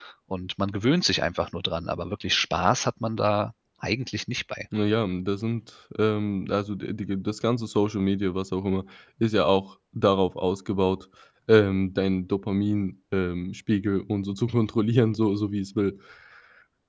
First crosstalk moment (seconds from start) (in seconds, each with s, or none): none